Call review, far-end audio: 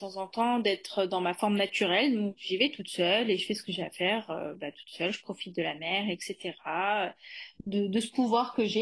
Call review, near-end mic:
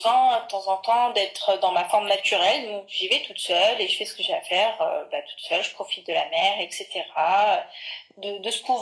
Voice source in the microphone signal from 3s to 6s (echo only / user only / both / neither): echo only